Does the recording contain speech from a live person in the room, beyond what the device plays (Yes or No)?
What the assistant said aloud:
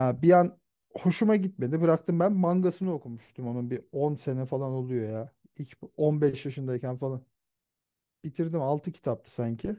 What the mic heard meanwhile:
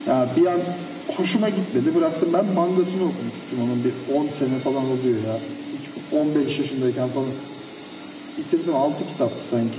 No